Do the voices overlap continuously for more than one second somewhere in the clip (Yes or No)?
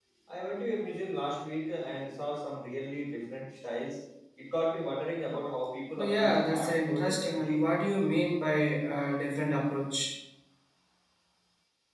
Yes